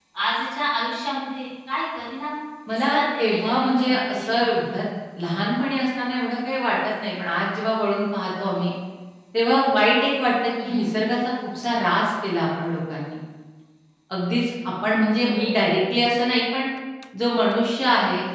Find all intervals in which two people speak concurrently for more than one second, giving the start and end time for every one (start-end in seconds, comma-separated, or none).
2.7-4.5